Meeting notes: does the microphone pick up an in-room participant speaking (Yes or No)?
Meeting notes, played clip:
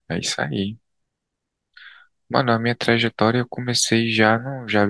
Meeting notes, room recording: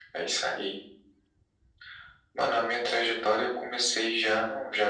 No